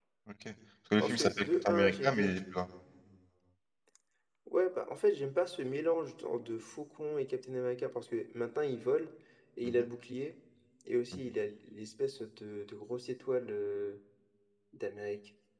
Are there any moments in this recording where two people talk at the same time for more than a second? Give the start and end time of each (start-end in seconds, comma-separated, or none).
1.0-2.3